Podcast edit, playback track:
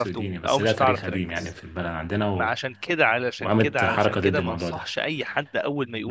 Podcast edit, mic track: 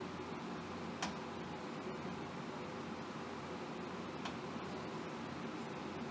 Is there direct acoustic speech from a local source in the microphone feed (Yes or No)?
No